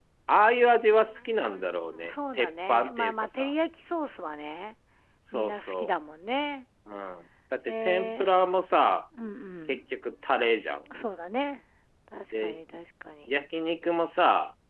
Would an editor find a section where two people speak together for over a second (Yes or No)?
Yes